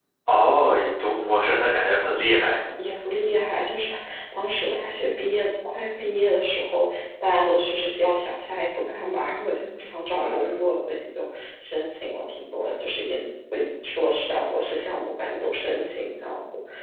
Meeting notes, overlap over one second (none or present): none